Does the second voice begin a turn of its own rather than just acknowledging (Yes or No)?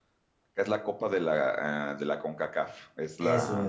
No